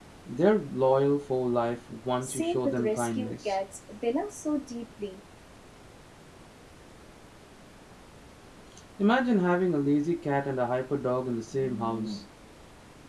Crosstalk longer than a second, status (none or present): present